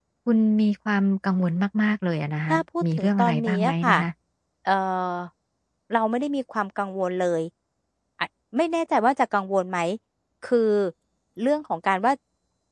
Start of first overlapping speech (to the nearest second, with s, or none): 3 s